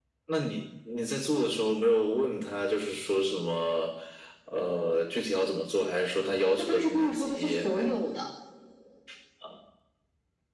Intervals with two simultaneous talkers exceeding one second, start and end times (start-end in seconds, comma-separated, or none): 6.6-7.9